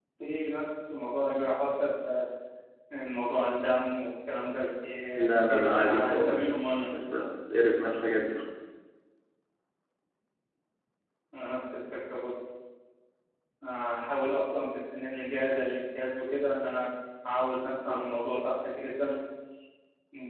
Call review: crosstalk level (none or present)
present